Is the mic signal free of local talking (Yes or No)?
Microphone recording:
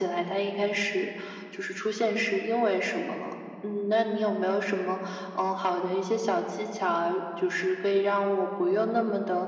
Yes